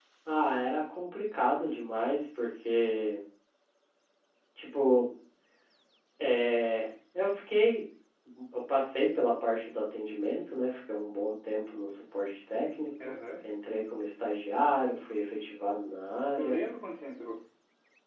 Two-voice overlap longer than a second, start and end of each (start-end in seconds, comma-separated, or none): none